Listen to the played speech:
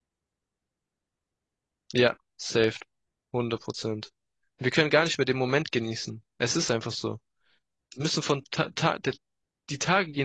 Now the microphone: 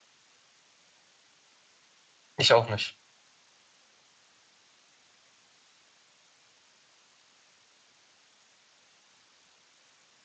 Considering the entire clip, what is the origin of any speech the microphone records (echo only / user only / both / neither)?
user only